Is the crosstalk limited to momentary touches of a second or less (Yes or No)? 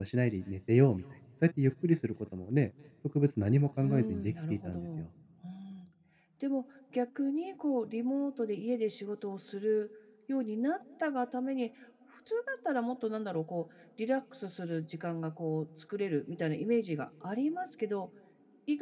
No